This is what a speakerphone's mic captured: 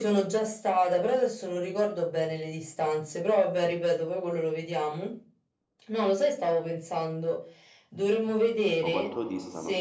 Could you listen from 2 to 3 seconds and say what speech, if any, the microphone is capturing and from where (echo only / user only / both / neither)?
echo only